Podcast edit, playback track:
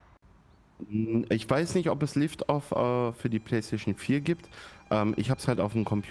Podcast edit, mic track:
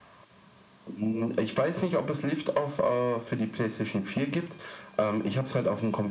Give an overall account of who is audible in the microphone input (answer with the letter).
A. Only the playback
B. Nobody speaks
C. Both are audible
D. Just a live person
A